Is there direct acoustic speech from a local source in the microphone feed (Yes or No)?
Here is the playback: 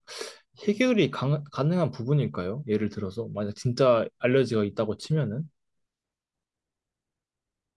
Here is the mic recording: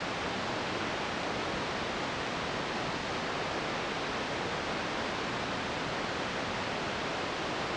No